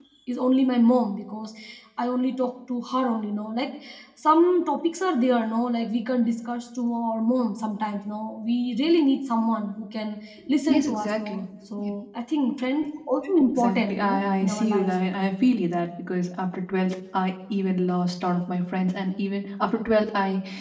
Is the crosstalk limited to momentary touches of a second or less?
No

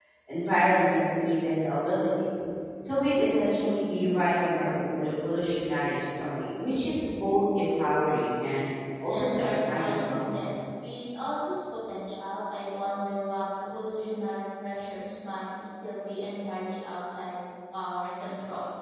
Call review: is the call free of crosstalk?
No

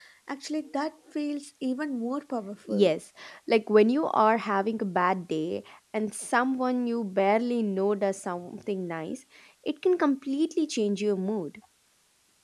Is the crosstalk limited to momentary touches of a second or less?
Yes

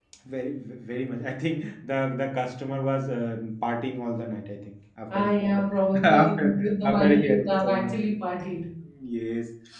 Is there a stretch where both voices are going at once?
Yes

